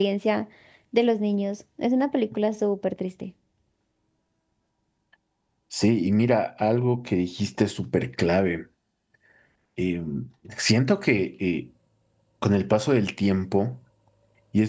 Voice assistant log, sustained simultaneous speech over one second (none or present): none